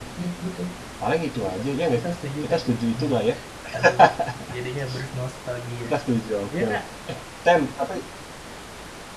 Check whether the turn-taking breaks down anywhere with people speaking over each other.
Yes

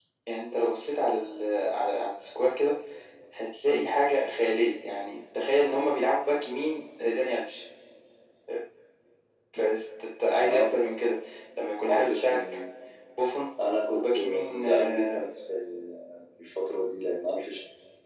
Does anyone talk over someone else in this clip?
Yes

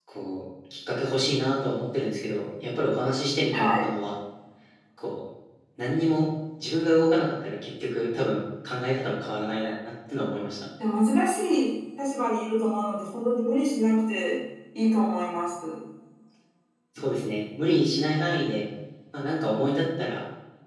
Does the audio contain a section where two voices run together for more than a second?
No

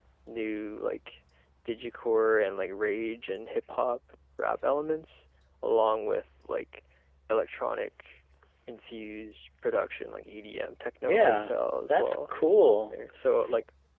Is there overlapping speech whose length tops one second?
No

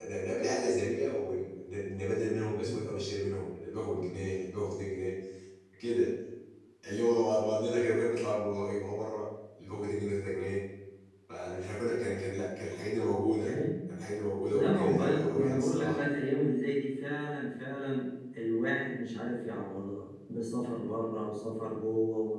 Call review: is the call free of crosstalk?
No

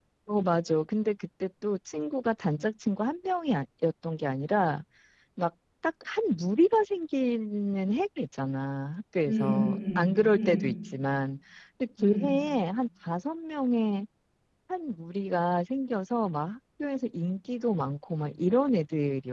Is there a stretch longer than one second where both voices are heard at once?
Yes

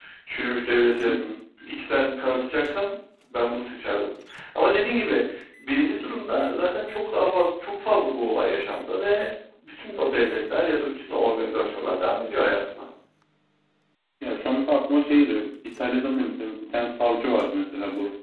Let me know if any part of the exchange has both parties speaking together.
No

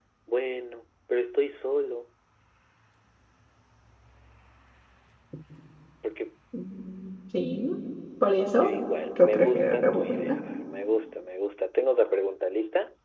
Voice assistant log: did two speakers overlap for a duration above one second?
Yes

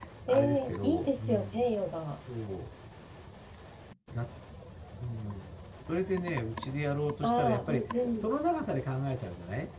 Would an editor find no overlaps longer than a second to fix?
No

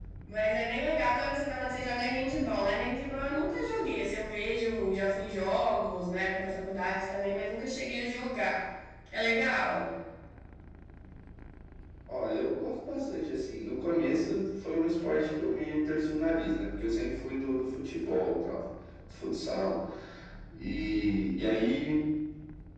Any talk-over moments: No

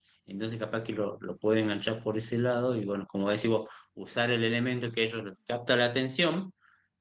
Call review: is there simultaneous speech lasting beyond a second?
No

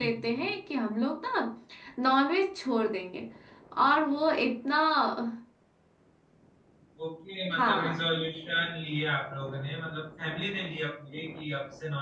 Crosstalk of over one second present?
No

